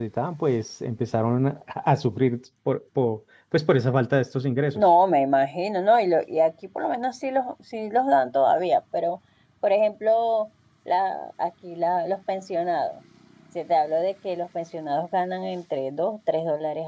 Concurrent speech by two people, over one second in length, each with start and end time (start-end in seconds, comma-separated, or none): none